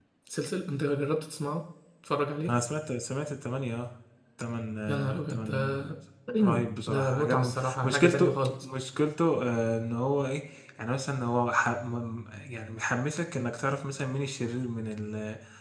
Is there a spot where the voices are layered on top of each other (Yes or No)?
Yes